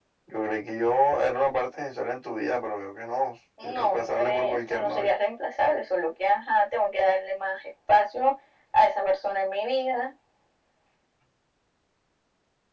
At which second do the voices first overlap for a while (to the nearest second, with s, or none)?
4 s